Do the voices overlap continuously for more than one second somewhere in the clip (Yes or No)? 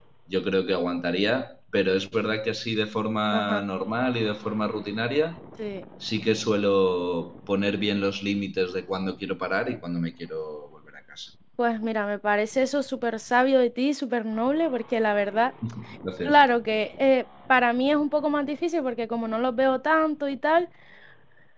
No